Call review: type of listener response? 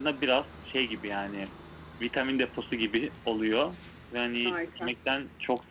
listening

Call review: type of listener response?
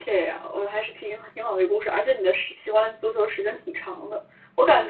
listening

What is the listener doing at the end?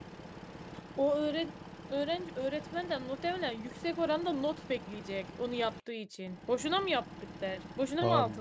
taking over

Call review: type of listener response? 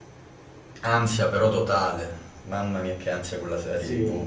taking over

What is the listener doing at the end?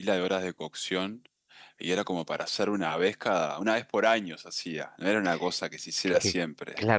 taking over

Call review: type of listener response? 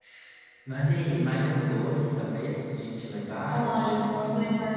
taking over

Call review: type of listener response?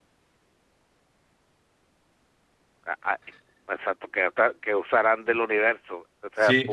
taking over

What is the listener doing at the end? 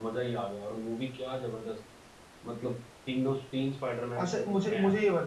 taking over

